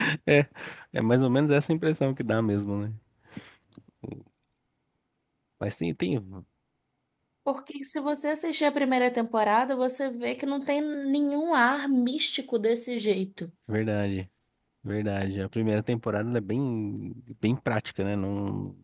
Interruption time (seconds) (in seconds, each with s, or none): none